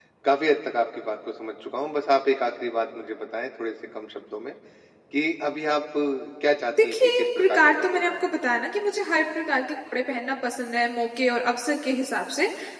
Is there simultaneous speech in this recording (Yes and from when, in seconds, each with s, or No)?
Yes, from 6.9 s